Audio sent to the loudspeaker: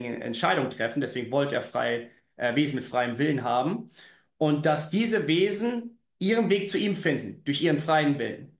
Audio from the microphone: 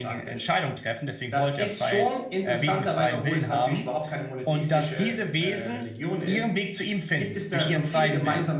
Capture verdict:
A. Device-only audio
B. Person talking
B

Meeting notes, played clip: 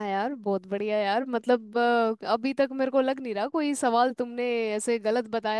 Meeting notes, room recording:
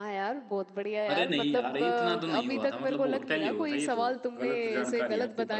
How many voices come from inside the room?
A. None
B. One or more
B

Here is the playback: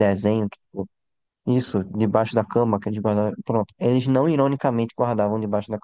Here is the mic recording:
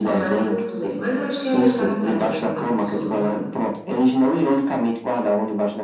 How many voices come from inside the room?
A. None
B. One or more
B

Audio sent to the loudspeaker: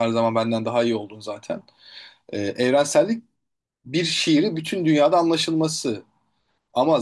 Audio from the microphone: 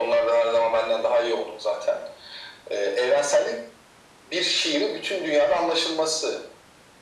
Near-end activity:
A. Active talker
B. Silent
B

